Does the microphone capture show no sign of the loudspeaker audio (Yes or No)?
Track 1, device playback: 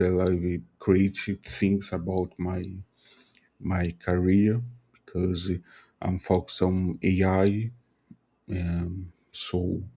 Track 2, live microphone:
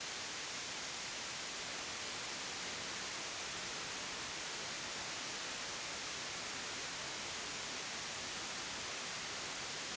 Yes